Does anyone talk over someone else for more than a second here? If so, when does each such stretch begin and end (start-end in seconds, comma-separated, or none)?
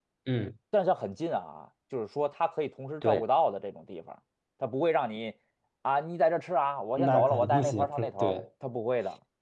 7.0-8.4